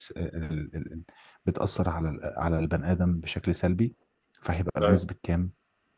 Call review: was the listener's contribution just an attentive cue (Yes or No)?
Yes